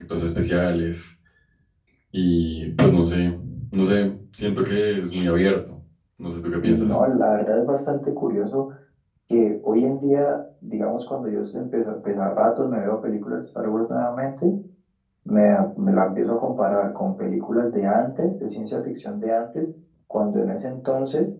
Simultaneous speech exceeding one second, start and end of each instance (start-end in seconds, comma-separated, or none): none